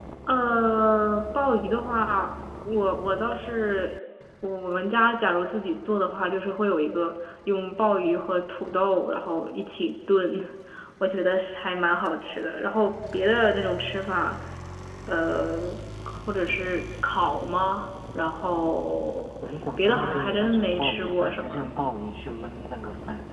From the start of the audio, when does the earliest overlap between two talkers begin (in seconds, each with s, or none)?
19.8 s